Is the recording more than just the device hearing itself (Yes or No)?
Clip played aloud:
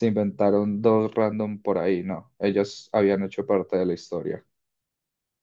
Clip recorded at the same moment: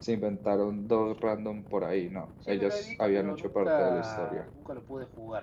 Yes